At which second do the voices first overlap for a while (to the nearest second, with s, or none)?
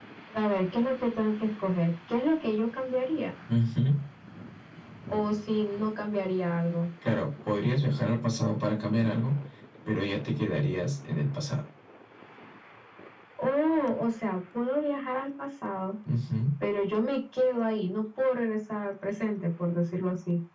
none